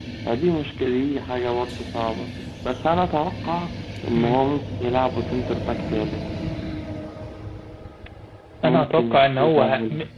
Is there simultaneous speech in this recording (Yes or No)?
Yes